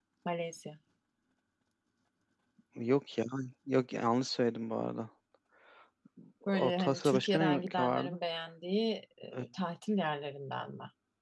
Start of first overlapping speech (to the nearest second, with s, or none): 6 s